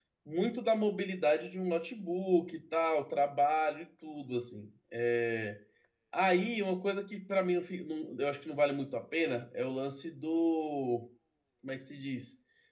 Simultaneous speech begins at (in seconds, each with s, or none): none